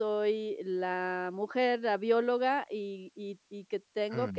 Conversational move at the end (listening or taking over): listening